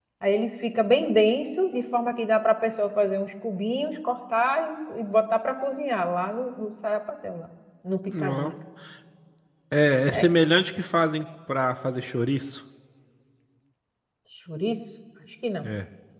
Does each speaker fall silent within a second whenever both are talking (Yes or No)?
Yes